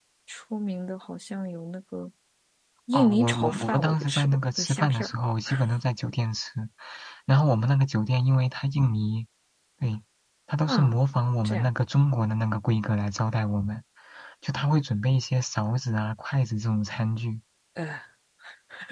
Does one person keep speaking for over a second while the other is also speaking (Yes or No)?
Yes